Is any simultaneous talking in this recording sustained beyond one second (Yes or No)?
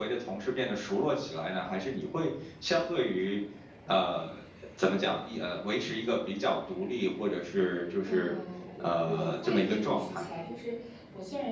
Yes